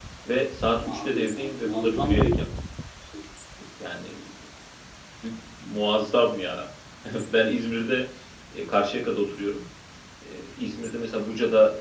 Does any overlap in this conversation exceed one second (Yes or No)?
Yes